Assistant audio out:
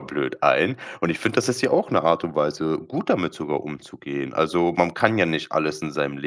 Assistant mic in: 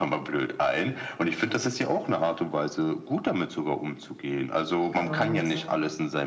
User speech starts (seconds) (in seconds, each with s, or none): 4.8 s